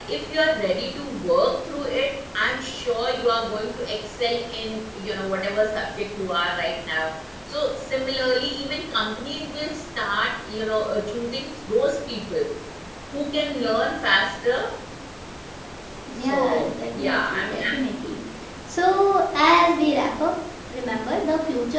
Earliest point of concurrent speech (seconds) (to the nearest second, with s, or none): 16 s